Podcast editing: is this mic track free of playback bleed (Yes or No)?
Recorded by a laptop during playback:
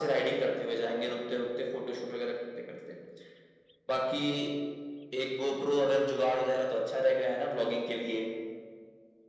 No